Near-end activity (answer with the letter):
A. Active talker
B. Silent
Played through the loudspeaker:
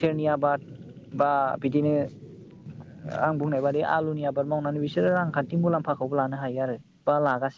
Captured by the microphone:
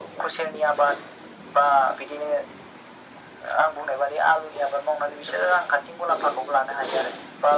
B